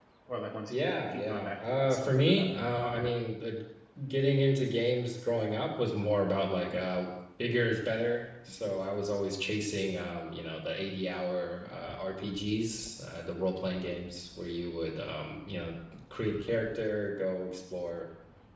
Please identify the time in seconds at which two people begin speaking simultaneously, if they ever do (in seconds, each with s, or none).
0.7 s